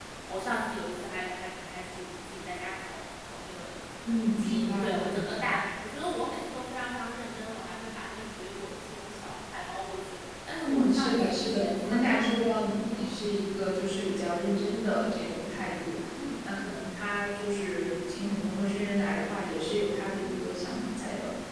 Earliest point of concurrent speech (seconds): 4.1 s

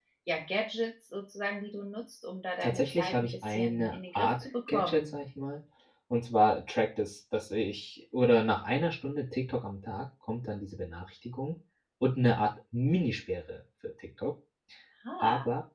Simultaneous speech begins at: 2.6 s

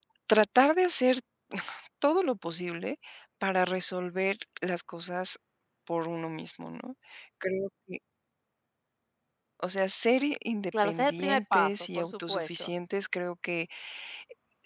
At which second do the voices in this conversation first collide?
10.7 s

